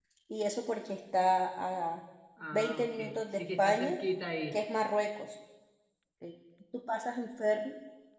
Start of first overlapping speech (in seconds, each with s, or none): 2.5 s